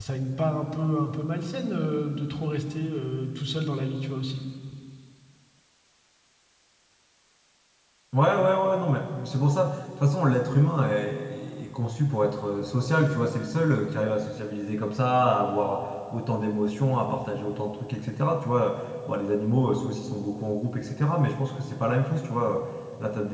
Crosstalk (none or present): none